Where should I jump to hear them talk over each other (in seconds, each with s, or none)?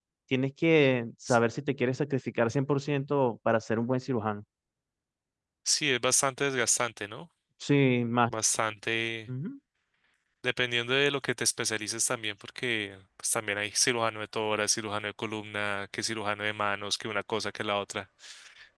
none